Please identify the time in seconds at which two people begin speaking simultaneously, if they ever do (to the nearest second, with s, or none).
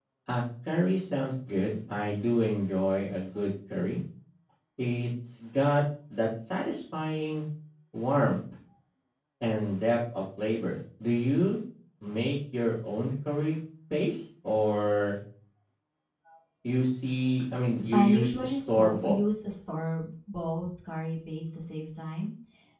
18 s